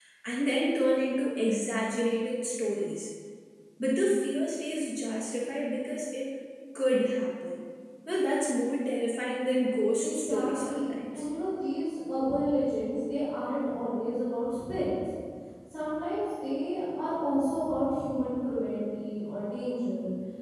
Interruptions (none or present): present